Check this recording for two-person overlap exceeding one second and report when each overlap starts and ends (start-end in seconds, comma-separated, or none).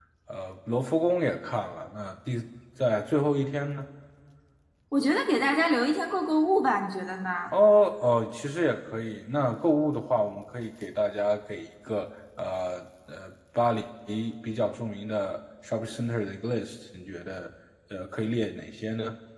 none